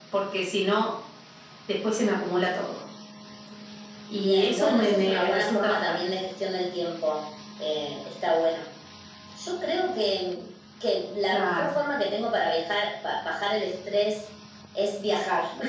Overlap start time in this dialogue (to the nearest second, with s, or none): 4 s